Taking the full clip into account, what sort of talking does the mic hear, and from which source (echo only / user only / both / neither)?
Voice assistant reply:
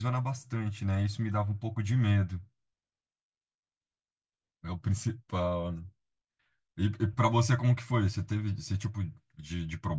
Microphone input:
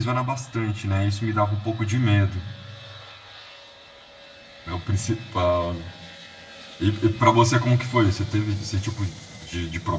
echo only